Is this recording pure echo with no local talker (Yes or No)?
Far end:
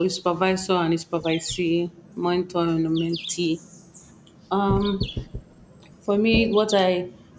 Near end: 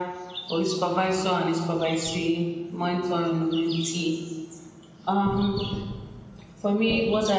Yes